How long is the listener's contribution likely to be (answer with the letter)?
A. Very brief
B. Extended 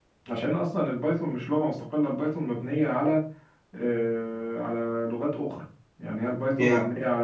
A